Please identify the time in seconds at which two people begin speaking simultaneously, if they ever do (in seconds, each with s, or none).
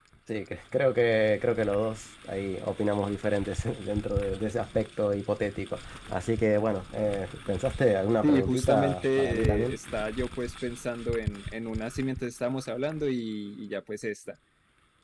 8.2 s